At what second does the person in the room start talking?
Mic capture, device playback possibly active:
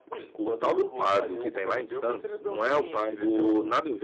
0.4 s

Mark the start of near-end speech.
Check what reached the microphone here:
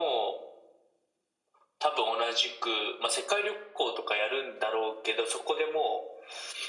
none

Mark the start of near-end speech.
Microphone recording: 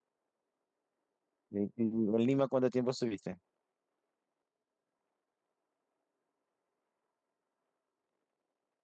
1.5 s

